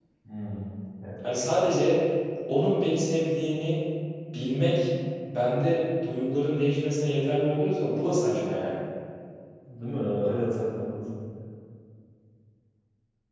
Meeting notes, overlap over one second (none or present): none